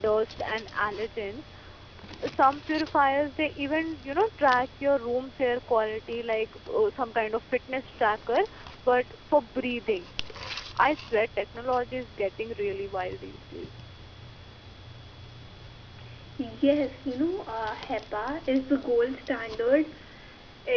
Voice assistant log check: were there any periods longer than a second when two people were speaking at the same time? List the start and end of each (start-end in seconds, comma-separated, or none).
none